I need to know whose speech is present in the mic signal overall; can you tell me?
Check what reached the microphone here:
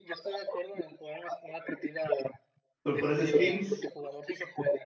both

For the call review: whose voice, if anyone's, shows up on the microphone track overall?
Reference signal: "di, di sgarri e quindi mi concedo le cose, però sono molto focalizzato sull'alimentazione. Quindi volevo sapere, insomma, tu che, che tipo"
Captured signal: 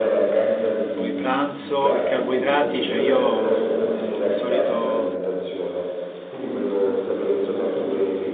both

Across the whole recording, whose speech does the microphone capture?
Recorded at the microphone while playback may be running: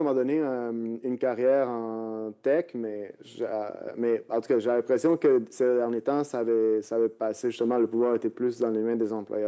echo only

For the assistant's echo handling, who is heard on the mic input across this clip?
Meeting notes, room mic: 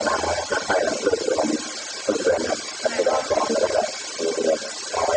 both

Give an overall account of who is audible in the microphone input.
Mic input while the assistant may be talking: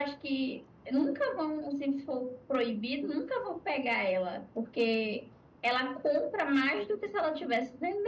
echo only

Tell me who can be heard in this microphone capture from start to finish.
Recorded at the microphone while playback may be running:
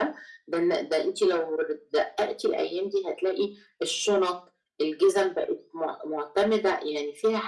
echo only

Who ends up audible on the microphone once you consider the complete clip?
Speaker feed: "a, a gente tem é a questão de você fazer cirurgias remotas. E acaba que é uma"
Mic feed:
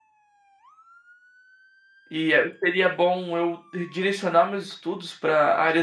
user only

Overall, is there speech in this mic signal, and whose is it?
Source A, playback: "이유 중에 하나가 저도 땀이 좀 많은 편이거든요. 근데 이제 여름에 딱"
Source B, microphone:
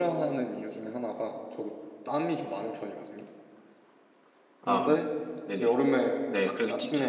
both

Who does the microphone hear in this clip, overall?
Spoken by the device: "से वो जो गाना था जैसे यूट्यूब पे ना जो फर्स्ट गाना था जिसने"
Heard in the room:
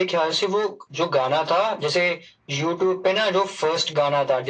echo only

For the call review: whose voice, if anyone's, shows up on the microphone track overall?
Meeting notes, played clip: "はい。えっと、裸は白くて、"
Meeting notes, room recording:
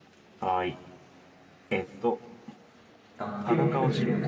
both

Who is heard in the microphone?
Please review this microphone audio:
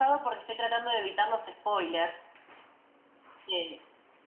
echo only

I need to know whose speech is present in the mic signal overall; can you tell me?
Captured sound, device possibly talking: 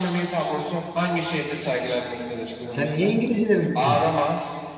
both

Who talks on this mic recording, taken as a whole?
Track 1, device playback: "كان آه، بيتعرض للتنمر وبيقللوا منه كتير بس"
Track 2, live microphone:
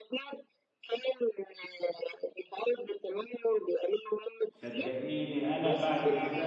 both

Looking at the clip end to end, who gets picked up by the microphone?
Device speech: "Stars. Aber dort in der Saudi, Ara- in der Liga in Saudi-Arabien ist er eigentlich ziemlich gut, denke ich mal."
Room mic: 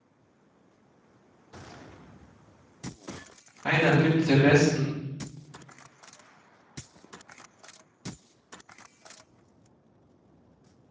user only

